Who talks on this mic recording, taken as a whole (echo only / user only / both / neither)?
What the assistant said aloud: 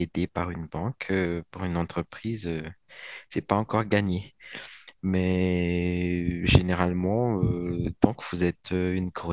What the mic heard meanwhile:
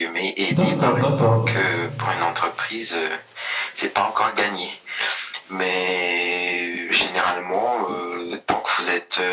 both